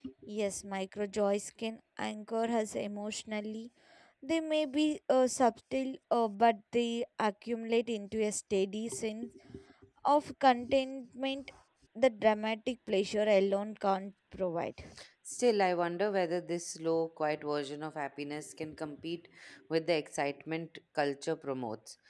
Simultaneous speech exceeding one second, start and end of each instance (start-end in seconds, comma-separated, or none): none